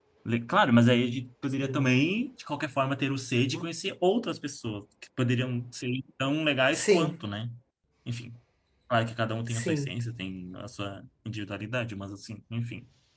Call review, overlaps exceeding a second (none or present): none